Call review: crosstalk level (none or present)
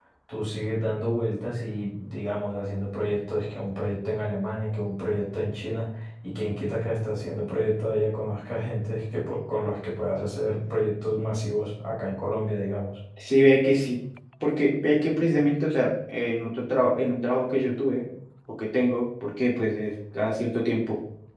none